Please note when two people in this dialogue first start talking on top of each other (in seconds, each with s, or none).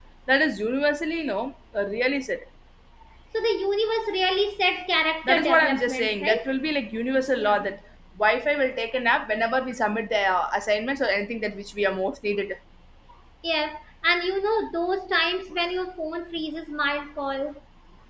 5.2 s